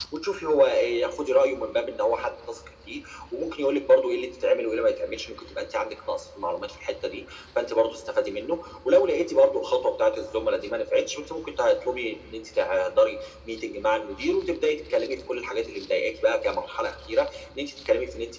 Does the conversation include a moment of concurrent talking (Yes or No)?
No